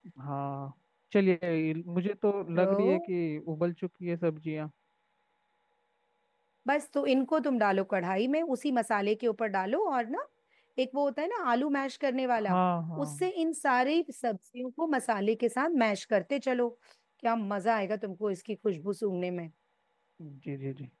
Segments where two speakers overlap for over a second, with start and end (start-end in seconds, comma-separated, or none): none